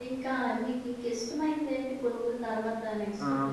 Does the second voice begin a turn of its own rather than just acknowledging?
Yes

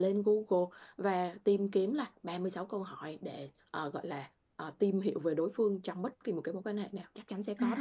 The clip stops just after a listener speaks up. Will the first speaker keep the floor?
No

